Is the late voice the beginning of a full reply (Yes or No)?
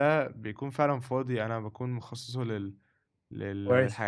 No